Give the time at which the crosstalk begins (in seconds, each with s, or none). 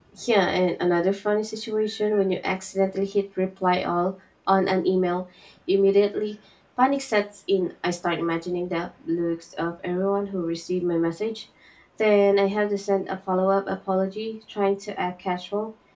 none